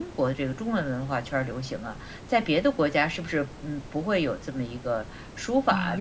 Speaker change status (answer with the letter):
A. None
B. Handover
B